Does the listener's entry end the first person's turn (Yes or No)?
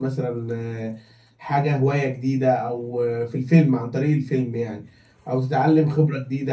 No